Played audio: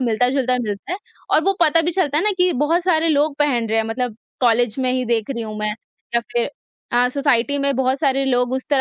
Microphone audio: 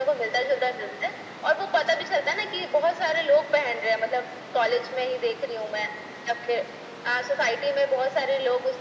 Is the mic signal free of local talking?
Yes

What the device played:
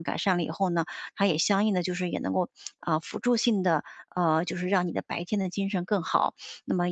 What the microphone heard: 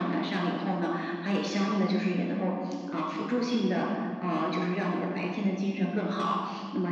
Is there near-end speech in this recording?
Yes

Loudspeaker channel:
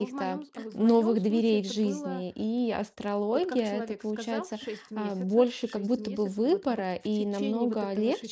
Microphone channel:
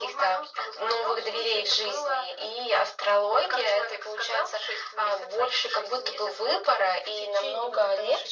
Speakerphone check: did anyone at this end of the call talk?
No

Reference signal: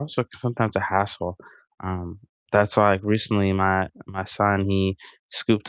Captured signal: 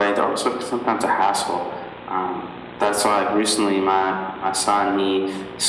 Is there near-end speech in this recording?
No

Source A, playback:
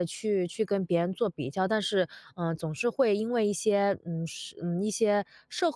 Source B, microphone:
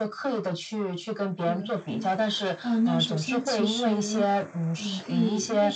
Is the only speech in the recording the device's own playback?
No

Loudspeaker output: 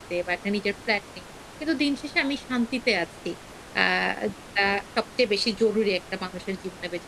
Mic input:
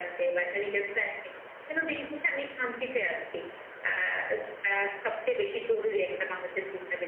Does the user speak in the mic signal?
No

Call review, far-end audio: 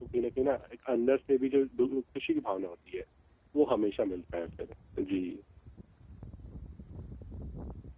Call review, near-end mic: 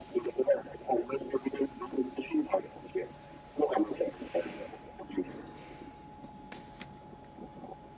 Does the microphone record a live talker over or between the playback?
No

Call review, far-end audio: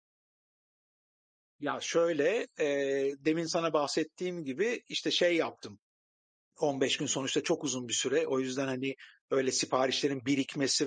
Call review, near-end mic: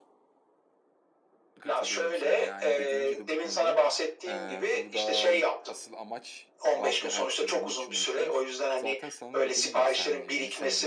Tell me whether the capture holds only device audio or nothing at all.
No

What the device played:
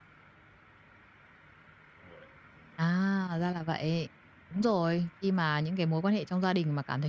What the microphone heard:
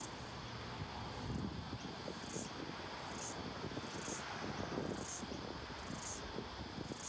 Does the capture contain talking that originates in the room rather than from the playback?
No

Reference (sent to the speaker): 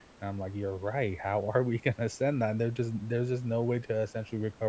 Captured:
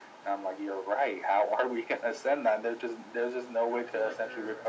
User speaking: Yes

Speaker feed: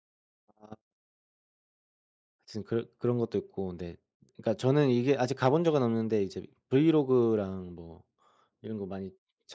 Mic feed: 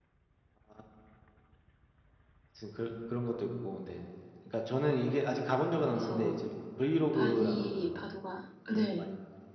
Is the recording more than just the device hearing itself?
Yes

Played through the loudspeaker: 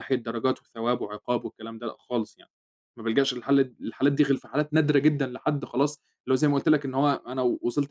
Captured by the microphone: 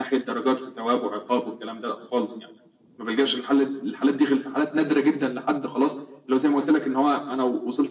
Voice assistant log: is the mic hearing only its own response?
Yes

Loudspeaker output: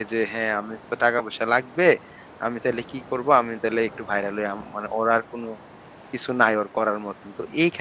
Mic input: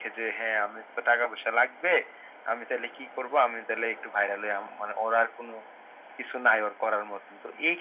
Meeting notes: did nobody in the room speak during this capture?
Yes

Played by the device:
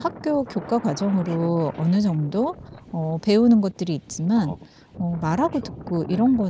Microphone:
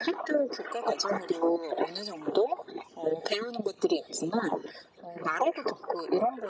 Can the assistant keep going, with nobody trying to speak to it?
Yes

